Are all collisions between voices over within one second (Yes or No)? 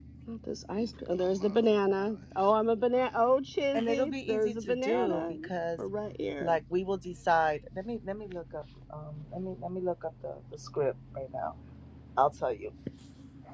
No